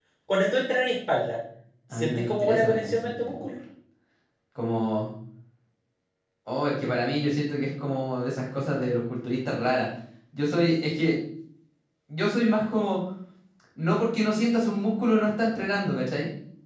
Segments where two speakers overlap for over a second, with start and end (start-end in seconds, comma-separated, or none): 1.9-3.5